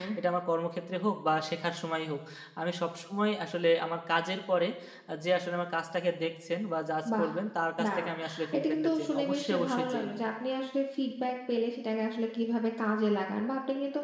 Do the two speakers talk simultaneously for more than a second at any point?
Yes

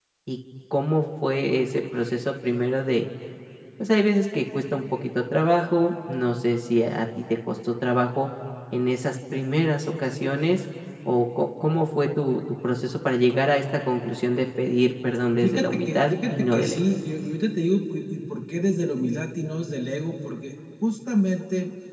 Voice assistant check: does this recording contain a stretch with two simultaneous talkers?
Yes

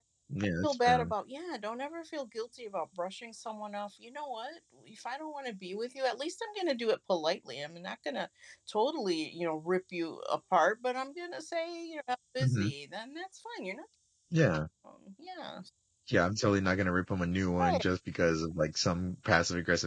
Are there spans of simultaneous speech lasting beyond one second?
No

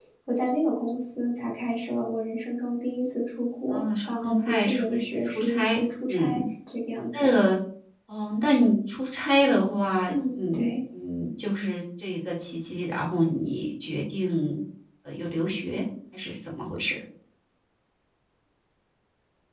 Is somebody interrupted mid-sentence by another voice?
Yes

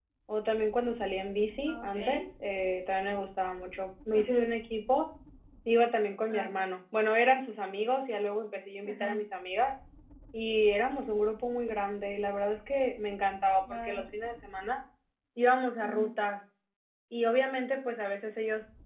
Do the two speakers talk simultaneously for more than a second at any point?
No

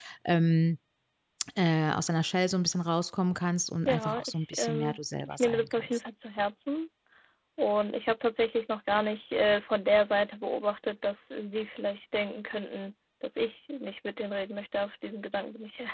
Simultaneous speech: Yes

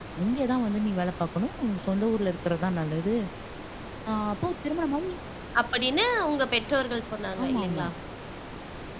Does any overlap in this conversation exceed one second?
No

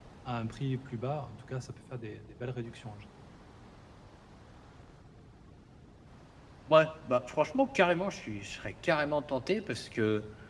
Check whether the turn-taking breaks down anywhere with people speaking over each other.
No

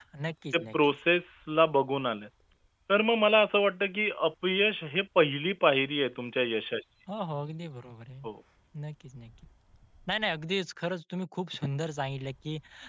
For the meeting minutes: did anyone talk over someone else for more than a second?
No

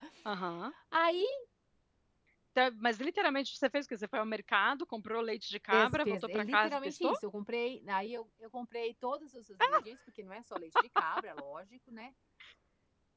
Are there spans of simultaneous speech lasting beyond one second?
Yes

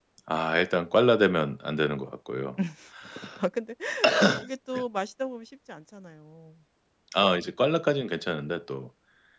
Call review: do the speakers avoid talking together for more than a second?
Yes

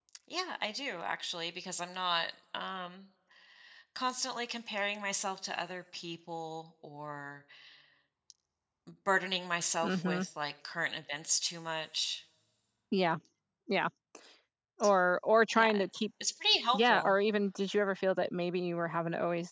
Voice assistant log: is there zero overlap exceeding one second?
Yes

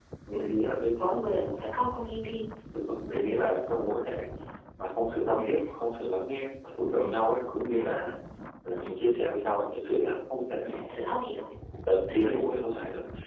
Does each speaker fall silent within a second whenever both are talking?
Yes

